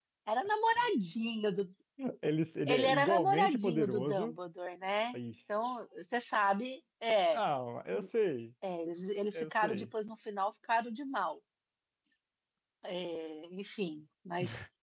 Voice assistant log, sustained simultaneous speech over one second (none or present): present